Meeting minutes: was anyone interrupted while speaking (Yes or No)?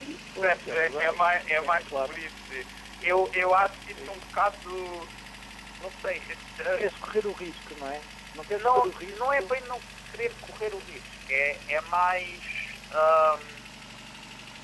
Yes